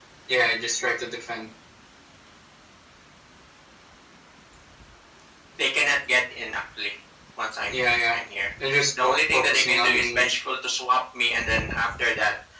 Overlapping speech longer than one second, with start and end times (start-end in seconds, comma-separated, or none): 9.0-10.3